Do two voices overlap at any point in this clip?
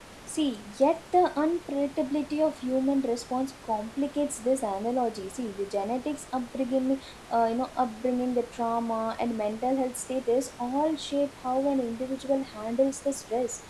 No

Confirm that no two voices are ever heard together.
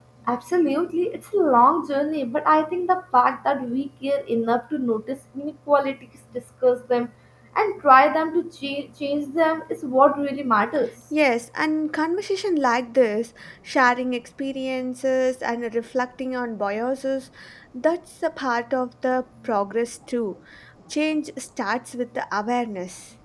Yes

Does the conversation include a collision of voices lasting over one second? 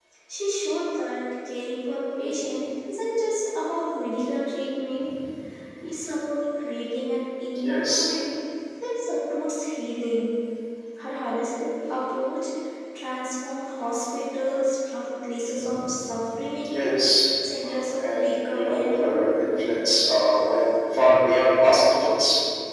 Yes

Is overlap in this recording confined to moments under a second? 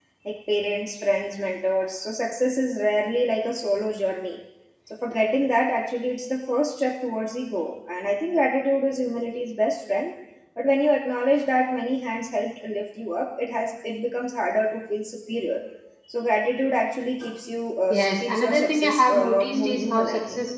No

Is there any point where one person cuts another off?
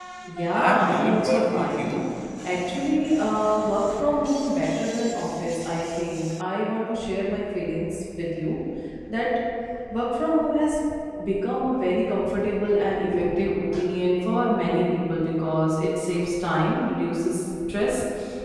Yes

